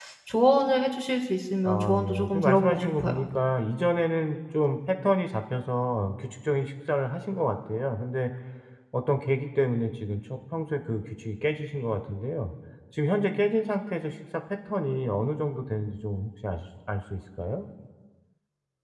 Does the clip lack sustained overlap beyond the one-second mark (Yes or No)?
No